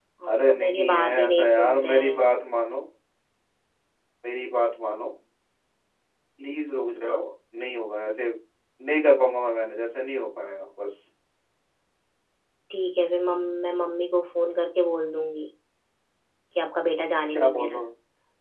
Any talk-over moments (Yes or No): Yes